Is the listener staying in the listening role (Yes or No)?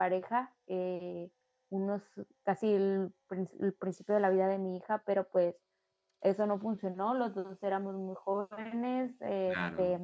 Yes